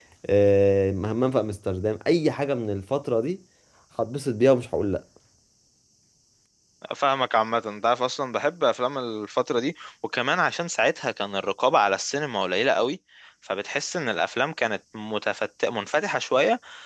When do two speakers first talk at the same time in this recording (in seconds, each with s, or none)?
none